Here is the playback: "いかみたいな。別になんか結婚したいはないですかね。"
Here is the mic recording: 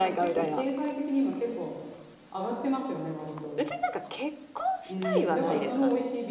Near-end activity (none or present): present